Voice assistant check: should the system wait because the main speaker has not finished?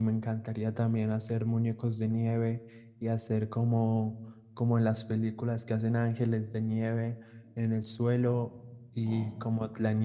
Yes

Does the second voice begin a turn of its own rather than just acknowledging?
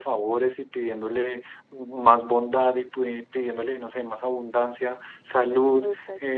No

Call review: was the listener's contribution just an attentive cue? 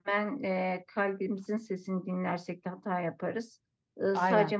Yes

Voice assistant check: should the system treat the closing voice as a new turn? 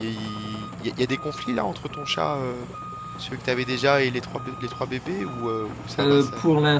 Yes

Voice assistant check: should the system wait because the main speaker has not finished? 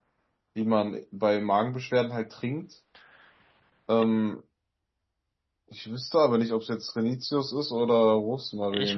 No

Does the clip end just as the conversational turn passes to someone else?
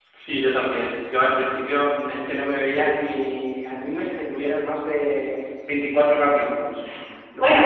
Yes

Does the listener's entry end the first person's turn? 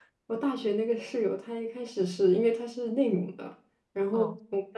No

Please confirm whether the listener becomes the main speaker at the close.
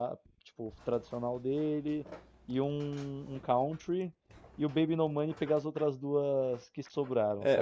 Yes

